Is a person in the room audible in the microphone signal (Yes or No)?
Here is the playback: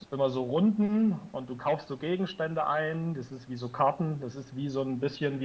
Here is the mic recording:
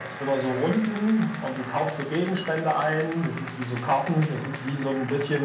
No